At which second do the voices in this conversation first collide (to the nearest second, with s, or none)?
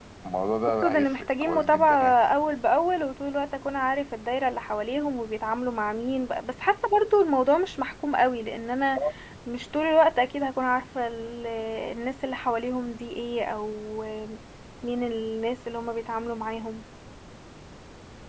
1 s